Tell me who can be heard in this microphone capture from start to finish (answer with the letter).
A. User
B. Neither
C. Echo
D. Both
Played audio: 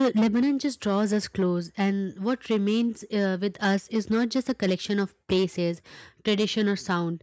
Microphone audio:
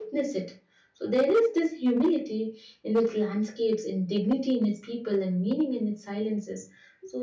A